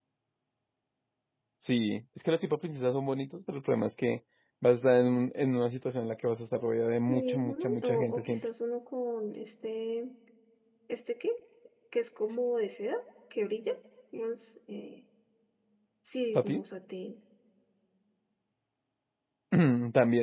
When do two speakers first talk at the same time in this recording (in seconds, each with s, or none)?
7.1 s